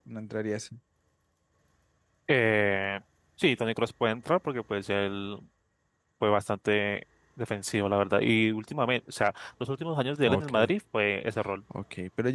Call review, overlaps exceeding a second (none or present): none